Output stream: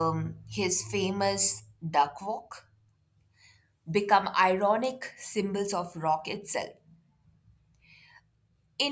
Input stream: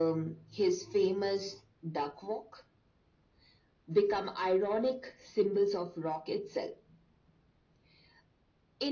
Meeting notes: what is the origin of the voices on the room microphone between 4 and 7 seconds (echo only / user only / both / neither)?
echo only